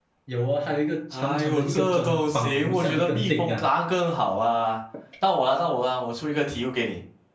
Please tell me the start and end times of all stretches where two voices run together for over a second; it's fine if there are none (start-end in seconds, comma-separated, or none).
1.1-3.6